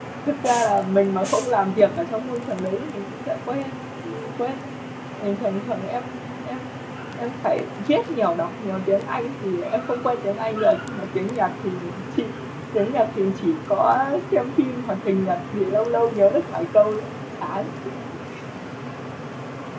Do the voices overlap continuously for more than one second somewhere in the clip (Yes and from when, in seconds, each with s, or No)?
No